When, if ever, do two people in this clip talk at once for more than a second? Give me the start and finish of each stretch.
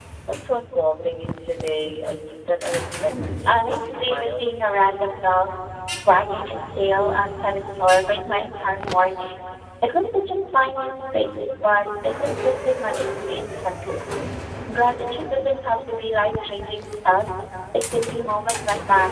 3.1-4.4

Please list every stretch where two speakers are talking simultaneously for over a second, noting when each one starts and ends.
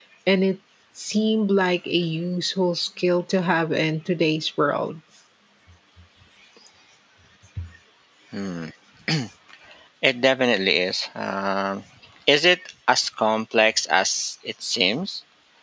none

